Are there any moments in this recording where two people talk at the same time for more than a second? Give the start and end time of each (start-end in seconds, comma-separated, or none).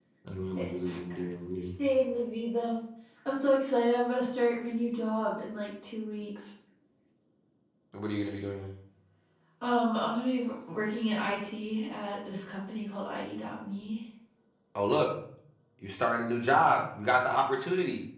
none